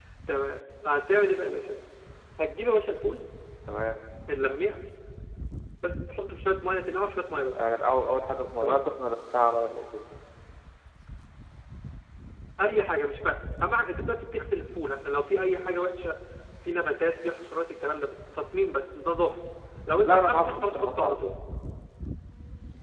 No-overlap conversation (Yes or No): No